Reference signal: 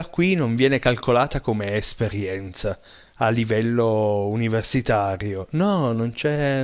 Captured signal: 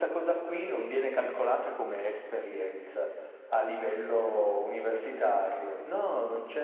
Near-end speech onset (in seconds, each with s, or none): none